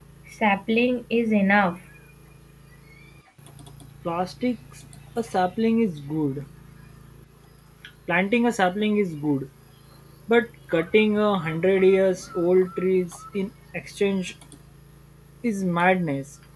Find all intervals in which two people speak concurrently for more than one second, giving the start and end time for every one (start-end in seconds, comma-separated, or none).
none